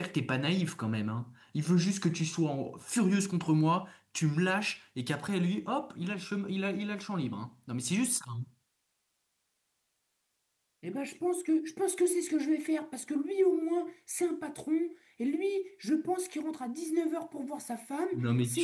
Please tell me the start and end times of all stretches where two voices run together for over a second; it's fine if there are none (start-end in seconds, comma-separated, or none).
none